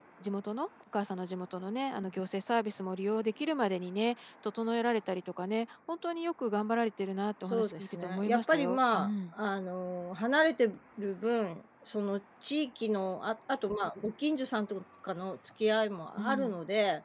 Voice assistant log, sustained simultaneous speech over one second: present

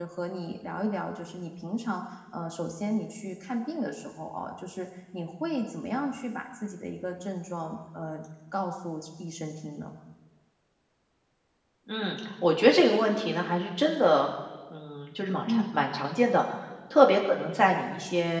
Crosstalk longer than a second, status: none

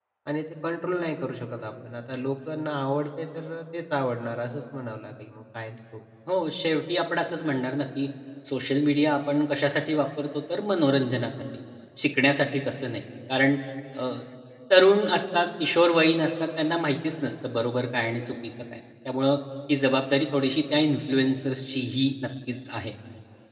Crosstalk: none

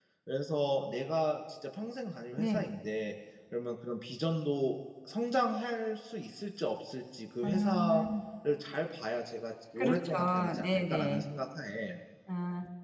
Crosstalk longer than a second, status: present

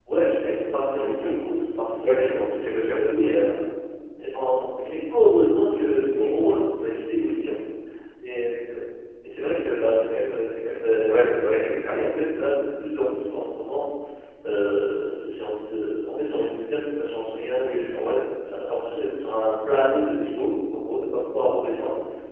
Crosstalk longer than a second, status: present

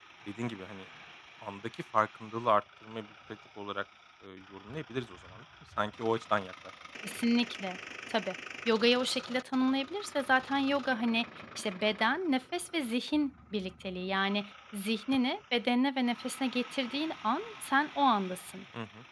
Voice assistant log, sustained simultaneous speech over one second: none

